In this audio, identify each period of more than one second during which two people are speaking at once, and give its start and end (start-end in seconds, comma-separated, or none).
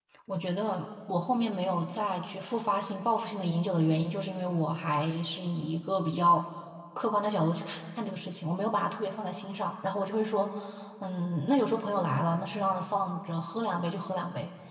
none